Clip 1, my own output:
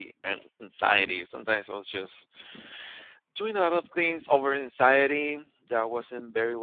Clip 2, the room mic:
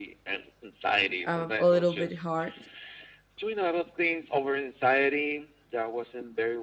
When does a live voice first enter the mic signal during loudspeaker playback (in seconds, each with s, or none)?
1.3 s